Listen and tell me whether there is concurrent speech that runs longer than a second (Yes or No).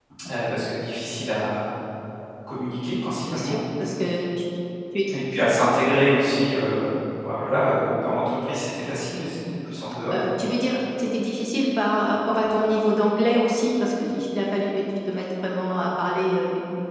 No